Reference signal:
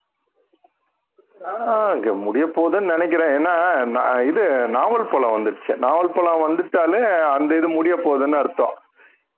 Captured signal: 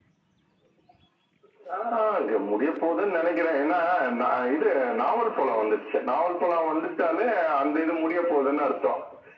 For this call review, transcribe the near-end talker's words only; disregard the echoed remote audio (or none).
none